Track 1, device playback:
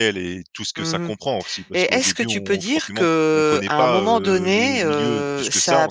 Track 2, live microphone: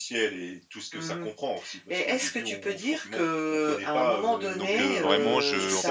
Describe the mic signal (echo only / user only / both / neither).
both